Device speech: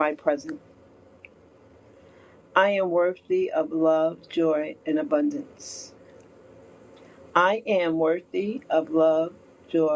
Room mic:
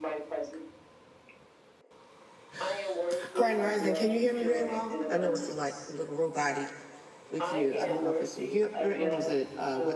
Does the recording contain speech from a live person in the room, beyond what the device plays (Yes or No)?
Yes